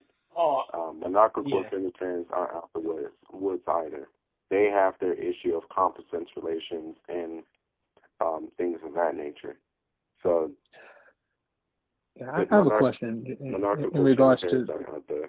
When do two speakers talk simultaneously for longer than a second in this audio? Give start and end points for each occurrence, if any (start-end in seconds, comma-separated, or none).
13.5-14.7